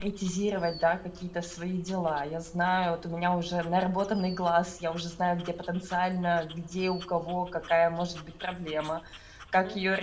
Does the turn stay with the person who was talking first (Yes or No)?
No